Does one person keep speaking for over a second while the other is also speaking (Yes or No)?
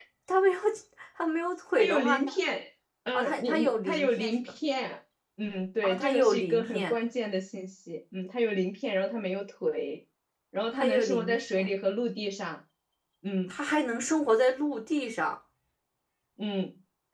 Yes